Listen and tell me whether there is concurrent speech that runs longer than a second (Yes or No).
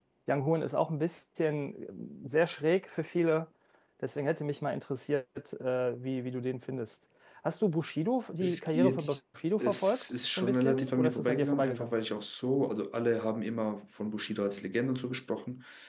Yes